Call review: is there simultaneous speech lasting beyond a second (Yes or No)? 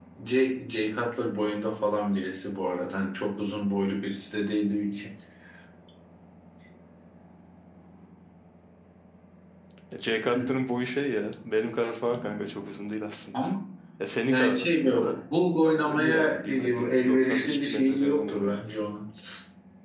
Yes